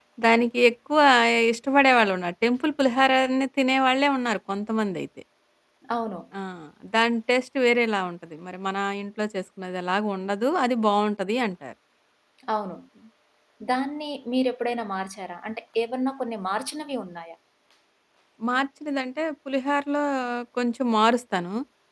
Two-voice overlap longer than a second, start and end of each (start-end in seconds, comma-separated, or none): none